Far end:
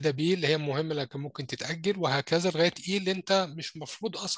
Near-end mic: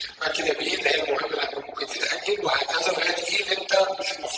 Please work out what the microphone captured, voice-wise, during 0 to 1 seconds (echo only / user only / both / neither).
echo only